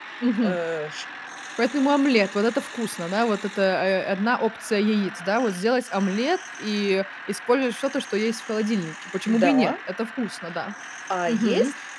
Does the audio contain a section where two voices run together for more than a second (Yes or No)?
No